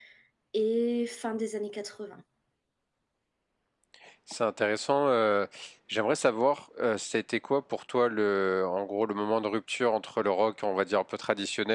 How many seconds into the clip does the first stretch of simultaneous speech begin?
none

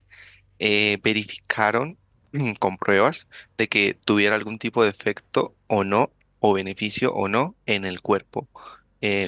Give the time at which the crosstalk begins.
none

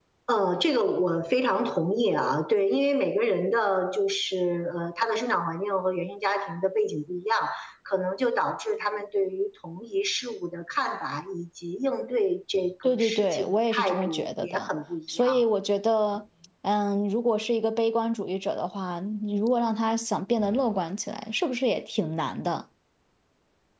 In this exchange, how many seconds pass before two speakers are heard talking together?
13 s

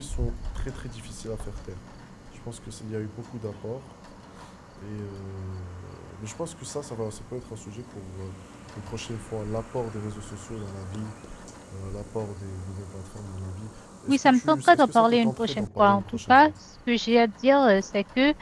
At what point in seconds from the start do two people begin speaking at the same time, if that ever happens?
14 s

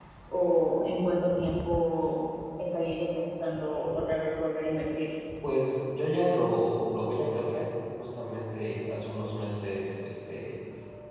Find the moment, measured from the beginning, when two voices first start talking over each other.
none

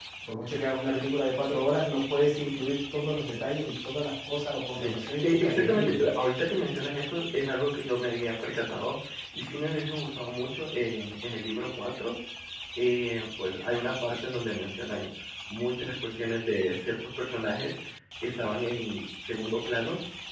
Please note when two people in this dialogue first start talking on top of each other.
5 s

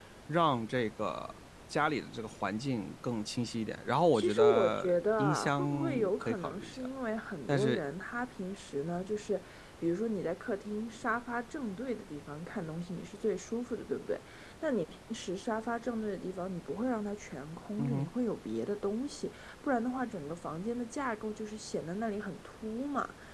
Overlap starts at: 4 s

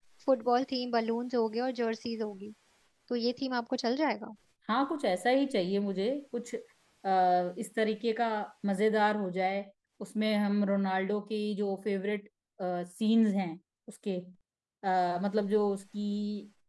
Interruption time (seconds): none

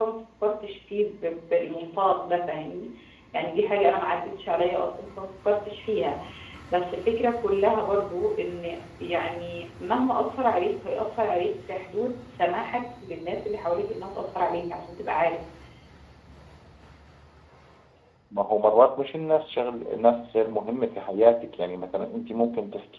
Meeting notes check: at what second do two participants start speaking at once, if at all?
none

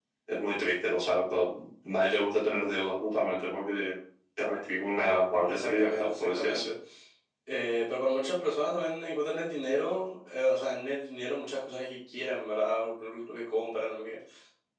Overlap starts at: 5 s

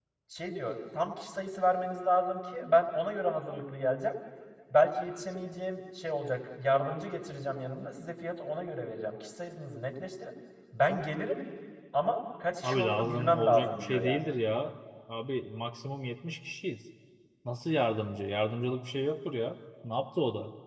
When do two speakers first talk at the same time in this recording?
13 s

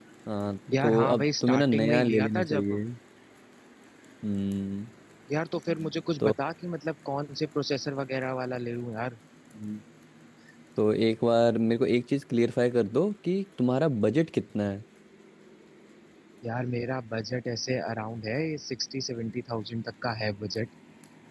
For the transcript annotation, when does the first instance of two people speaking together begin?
1 s

